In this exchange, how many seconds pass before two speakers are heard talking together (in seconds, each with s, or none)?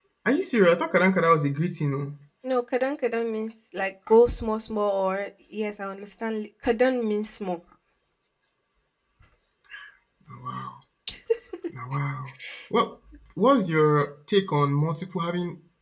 none